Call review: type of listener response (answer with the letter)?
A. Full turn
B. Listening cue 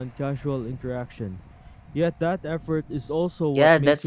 A